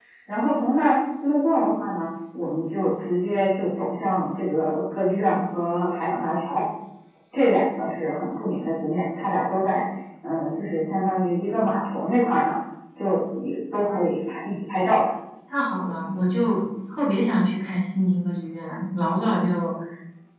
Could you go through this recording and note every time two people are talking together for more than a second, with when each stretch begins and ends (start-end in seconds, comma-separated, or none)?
none